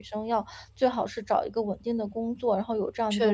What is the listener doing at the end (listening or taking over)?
listening